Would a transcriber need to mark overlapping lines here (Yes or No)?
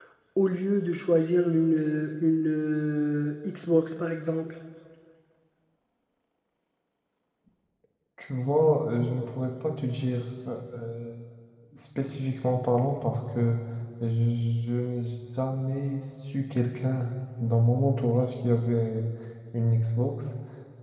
No